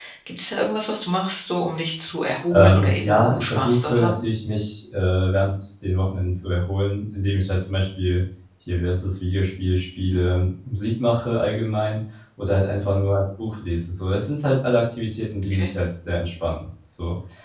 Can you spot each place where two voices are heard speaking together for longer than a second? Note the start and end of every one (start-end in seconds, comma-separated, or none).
2.5-4.2